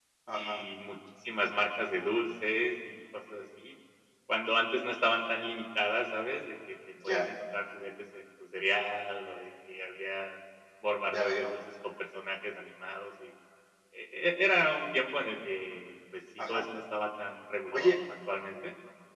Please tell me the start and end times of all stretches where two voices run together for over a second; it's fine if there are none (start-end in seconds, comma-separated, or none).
none